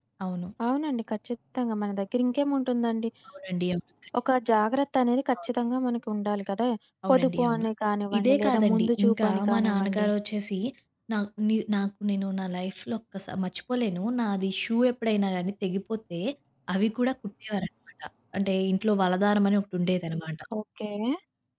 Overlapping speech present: Yes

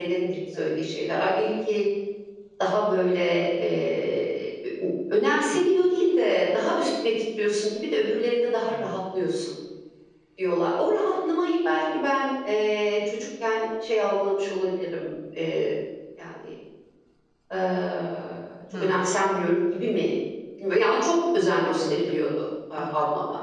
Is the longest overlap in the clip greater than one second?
No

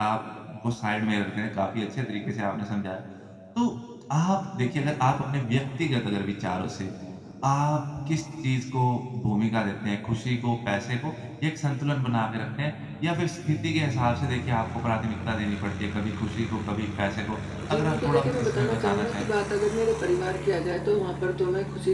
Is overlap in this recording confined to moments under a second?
No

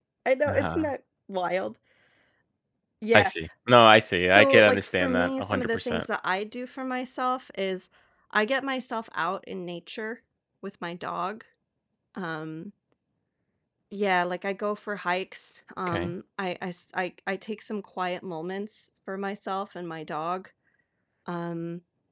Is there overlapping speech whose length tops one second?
Yes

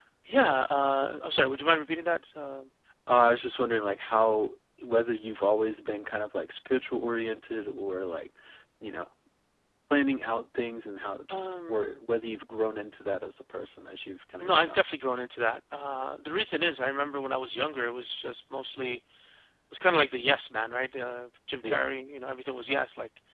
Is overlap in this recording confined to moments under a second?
Yes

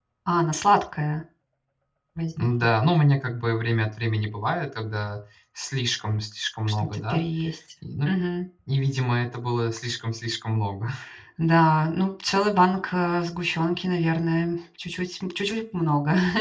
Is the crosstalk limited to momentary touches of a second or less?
Yes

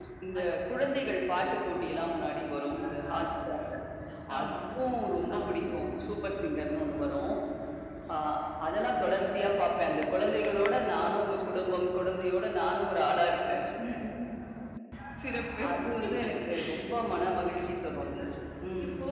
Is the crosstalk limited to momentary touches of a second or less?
Yes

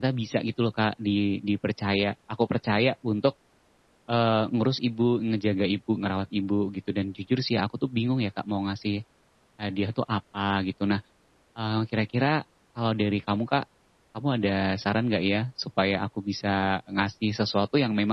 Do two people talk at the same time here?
No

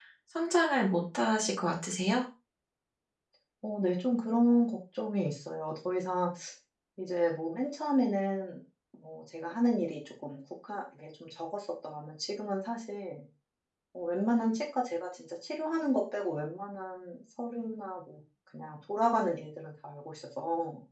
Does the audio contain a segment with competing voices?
No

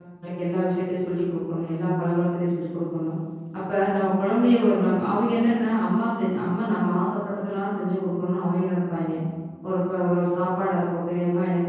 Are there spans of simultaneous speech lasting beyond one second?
No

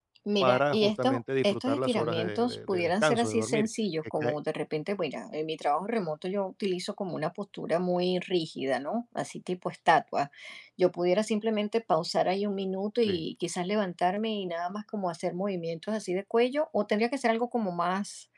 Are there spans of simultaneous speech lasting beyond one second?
Yes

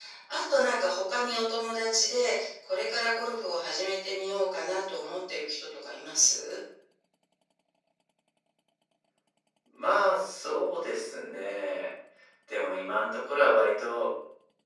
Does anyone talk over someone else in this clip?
No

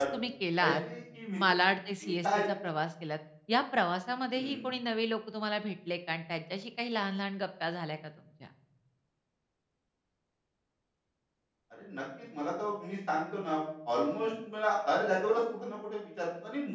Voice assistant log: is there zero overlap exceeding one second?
Yes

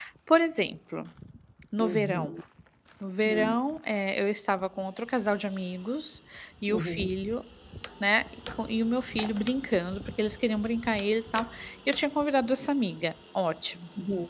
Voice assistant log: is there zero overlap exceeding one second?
Yes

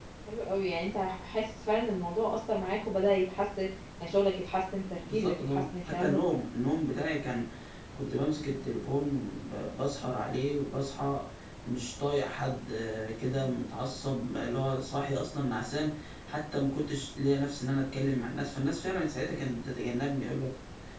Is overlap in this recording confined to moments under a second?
No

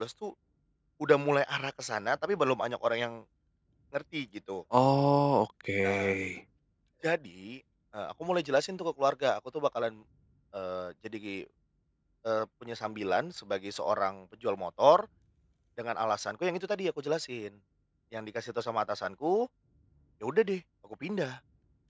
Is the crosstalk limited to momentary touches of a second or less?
Yes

